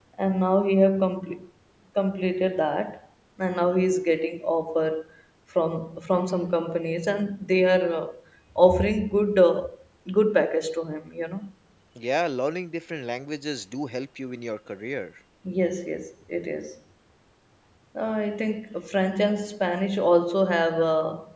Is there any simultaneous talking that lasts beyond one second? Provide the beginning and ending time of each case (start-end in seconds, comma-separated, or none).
none